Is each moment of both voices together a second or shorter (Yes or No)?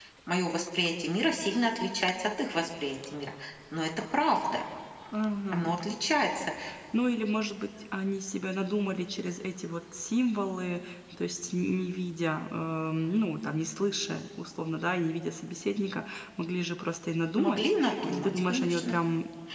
No